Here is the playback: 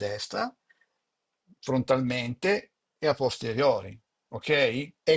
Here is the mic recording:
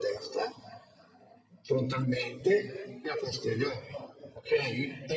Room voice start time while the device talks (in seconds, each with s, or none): none